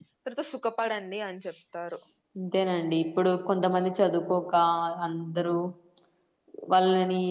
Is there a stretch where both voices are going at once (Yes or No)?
No